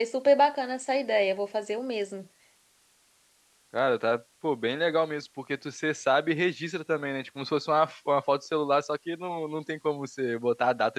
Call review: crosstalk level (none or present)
none